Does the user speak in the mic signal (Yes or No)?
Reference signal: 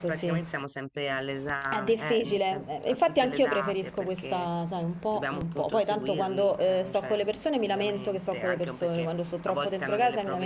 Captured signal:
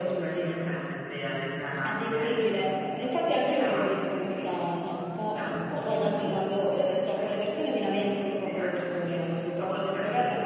No